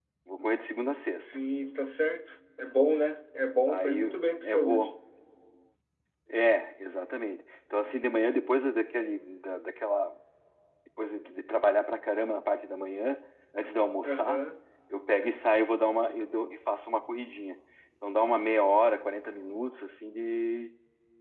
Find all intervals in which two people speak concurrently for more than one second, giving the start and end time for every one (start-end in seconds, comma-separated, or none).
3.7-4.9